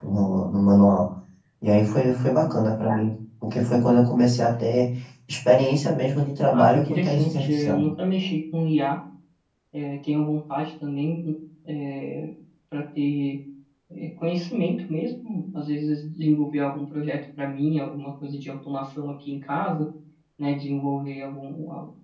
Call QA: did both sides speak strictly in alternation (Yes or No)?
No